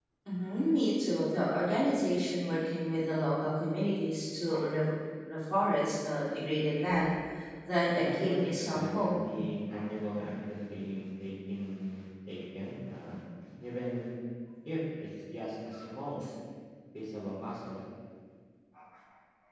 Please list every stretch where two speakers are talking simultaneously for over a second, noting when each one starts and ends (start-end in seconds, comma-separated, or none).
7.9-9.1